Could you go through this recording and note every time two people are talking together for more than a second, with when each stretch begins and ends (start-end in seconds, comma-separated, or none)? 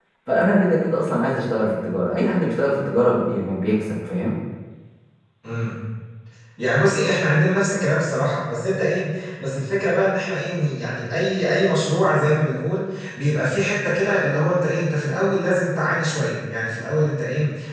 none